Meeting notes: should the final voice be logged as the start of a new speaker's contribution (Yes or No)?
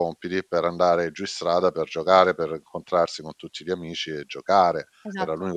No